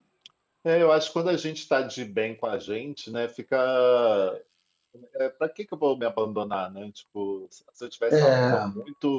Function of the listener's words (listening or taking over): listening